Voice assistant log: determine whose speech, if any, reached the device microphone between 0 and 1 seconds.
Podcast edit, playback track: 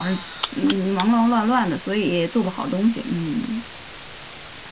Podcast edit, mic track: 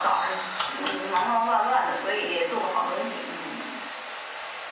echo only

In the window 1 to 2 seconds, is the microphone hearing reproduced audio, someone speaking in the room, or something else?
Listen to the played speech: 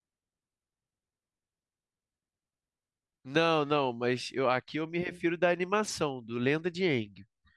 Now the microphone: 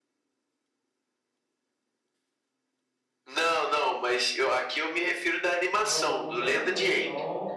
neither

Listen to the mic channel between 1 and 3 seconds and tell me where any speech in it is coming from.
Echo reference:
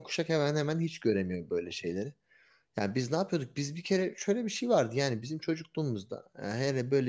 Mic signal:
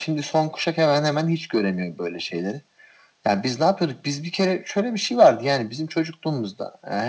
echo only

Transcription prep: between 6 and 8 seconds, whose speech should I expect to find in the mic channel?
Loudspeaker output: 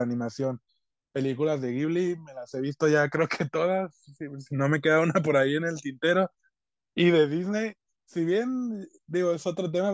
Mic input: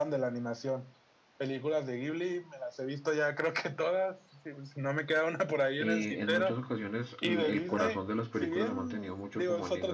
both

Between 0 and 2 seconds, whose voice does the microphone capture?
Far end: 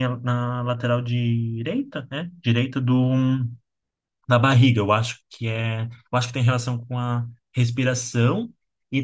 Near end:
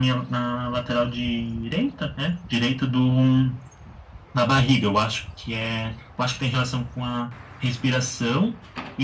echo only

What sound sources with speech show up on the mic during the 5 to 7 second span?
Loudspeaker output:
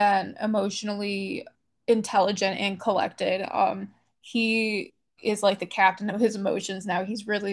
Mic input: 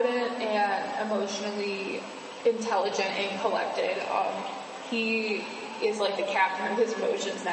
echo only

